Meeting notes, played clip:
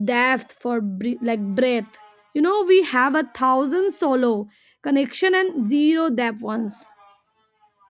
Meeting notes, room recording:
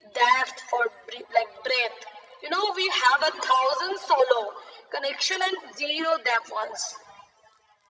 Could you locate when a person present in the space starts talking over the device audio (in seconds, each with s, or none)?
none